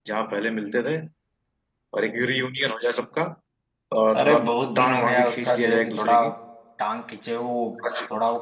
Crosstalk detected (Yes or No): Yes